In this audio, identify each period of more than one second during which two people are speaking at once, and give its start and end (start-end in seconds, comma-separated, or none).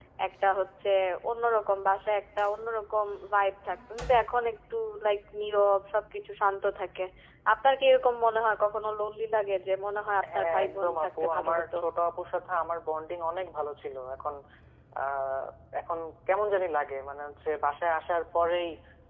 10.4-11.6